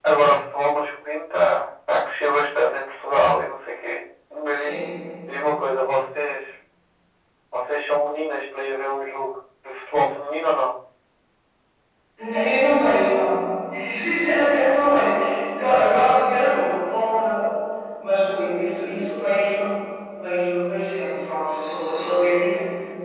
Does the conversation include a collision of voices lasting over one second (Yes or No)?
No